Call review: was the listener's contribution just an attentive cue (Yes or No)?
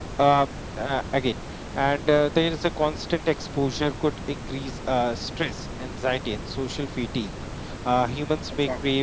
Yes